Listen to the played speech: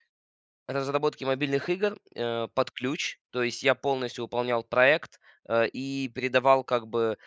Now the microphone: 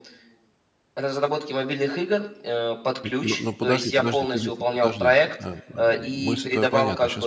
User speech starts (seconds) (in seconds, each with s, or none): 3.0 s